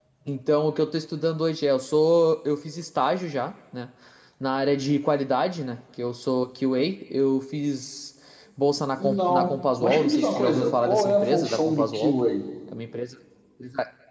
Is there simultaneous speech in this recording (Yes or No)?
Yes